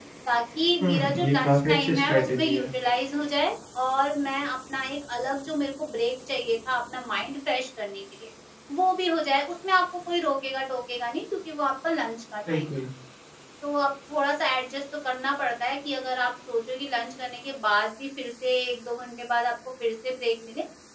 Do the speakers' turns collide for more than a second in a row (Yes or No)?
Yes